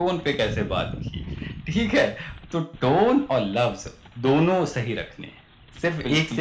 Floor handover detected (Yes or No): Yes